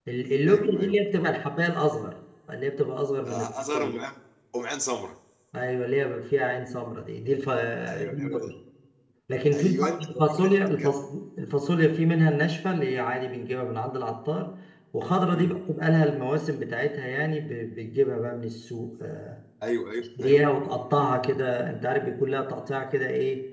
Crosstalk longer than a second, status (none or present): present